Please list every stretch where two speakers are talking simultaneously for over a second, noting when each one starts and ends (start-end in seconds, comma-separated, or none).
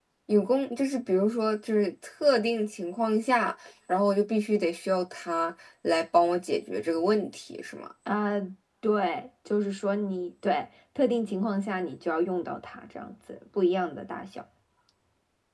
none